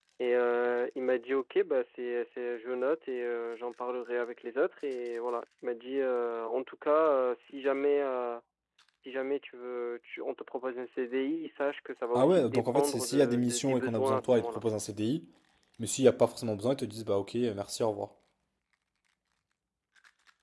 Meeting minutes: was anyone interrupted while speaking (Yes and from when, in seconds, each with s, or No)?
Yes, from 12.2 s